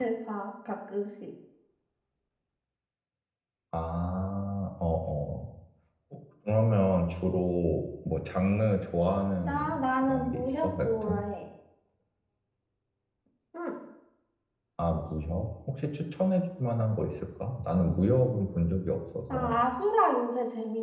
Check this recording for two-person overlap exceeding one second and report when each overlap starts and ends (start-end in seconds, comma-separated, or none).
9.4-11.2